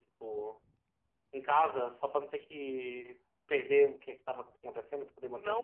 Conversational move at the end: taking over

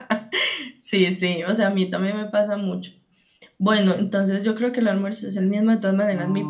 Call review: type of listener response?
listening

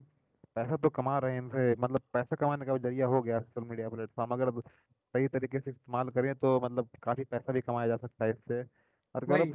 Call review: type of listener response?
listening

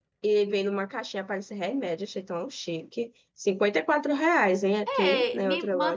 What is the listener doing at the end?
taking over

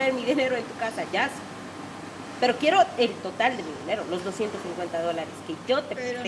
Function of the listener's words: taking over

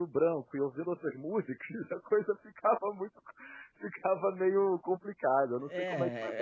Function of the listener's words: taking over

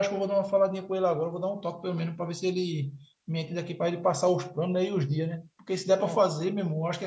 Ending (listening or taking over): listening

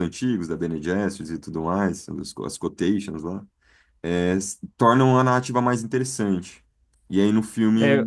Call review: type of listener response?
listening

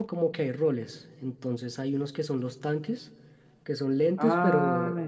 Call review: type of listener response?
listening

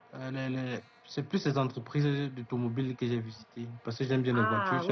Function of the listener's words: taking over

